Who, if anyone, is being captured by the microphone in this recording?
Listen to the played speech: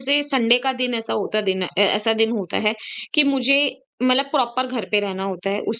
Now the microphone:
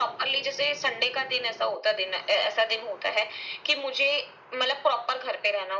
echo only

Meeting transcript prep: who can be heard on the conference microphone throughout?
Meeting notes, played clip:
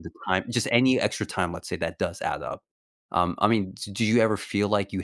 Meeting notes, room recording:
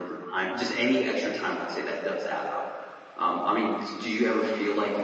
echo only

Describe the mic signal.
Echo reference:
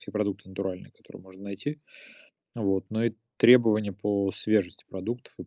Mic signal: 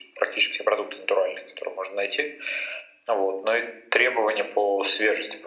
echo only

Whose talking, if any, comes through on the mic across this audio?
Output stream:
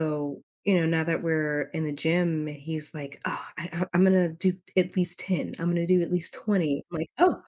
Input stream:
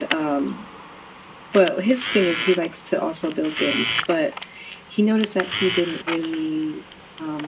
user only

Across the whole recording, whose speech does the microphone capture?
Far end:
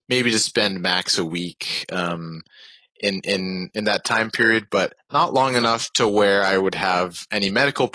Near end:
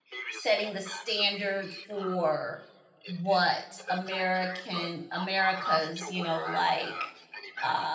both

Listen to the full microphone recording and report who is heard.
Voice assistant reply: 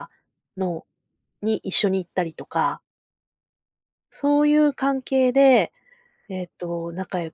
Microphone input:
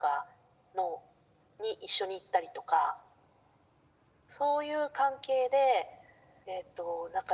echo only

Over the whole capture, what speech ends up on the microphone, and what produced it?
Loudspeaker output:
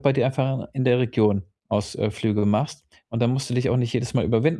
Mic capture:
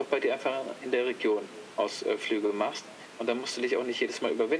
echo only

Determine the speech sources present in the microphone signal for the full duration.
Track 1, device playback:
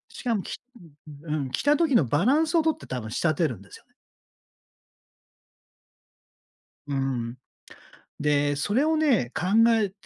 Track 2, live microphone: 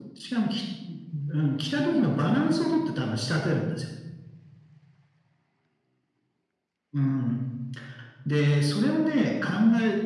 echo only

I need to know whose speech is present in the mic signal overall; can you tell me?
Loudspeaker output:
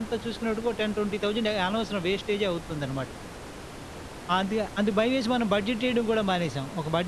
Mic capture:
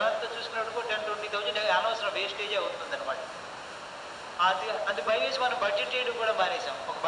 echo only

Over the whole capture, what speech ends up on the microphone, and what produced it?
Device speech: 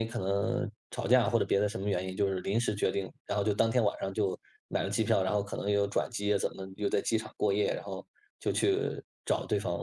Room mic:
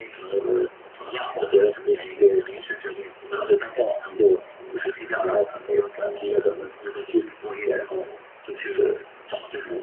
echo only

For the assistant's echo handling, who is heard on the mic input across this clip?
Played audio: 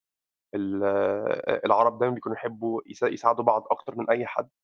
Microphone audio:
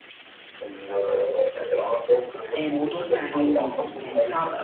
both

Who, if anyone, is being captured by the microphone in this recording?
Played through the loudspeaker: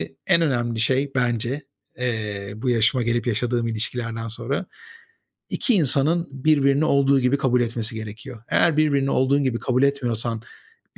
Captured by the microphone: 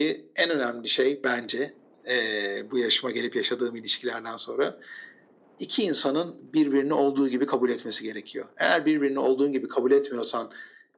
echo only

